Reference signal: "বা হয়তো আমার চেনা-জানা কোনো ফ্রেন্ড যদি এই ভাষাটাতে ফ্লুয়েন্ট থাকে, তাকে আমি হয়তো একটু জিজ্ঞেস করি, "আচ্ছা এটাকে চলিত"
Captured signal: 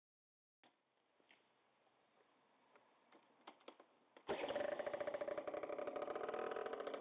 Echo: none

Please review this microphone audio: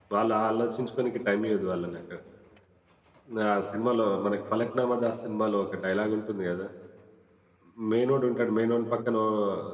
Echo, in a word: none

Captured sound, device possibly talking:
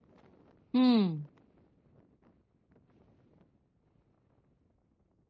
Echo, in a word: none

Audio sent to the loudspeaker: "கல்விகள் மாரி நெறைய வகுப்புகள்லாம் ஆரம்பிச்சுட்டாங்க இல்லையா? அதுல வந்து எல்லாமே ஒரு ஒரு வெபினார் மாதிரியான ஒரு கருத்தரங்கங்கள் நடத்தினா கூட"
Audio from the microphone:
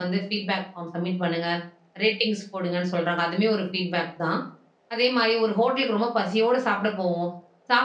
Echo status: none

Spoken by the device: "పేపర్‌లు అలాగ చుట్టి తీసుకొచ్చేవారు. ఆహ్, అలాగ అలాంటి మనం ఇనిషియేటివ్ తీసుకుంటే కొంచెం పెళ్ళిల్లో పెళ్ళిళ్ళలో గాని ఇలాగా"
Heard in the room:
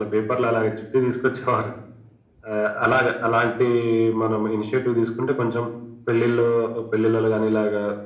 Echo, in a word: present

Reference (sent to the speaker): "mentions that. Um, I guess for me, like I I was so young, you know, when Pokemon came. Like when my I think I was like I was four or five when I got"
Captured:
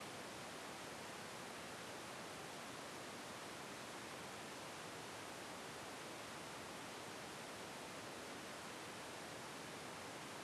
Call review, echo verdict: none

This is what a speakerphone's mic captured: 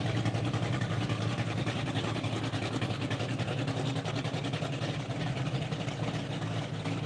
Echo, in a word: none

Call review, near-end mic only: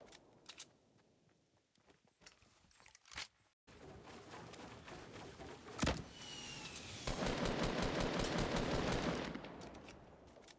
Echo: none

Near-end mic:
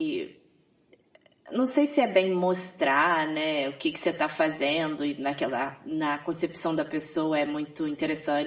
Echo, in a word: none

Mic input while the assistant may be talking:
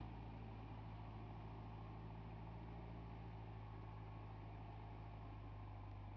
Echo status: none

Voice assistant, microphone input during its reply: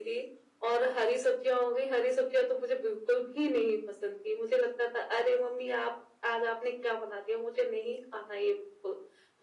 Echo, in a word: present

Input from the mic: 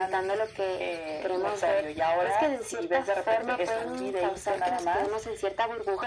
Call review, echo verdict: present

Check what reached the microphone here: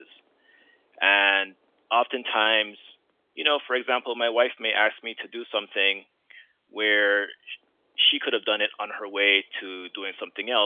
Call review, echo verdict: none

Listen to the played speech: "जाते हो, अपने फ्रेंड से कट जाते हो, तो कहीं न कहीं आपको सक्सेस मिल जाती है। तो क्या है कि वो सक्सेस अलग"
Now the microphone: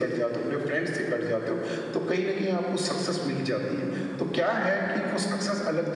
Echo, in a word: present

